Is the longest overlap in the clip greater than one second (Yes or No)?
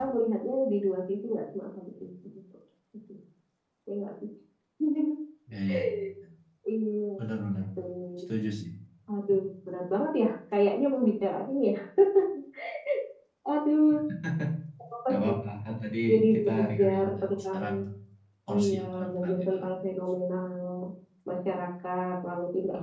Yes